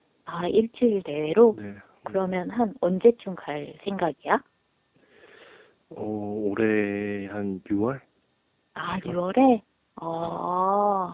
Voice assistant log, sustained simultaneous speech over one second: none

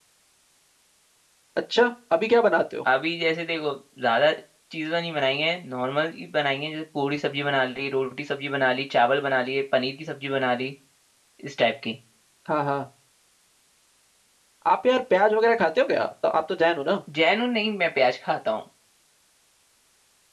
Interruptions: none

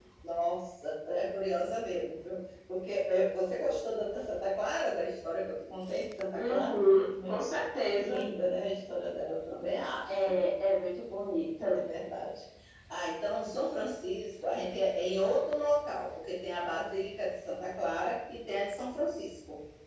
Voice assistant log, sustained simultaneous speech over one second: none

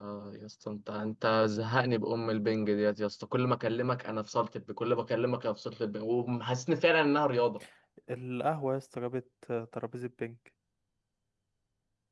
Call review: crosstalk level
none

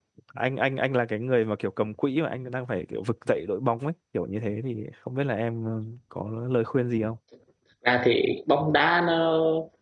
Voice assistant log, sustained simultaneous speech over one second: none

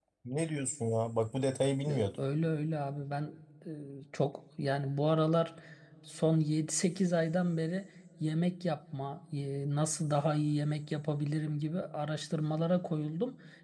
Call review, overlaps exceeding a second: none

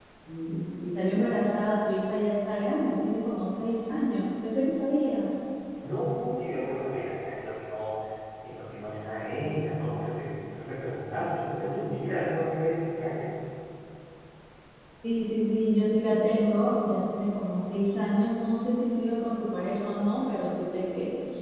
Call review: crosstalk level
none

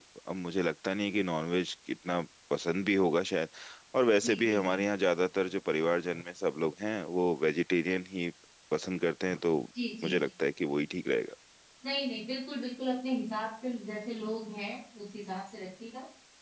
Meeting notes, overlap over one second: none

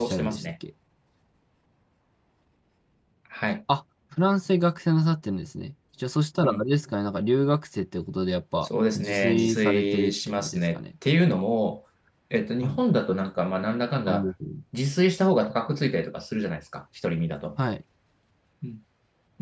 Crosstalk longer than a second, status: present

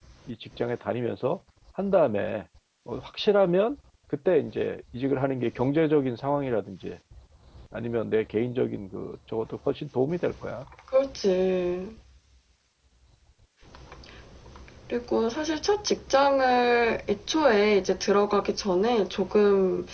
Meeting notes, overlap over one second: none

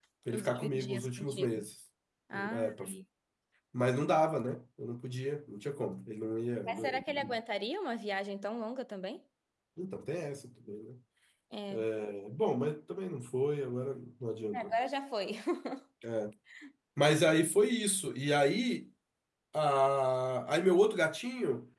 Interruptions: present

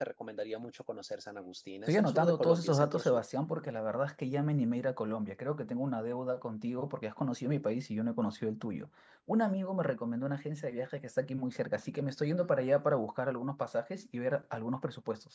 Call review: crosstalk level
present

